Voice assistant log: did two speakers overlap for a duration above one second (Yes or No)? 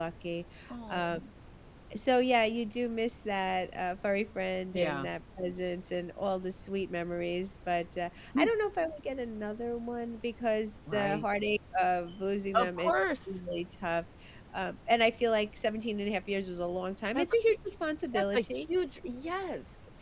No